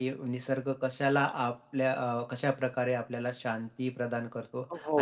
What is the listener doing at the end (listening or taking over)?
listening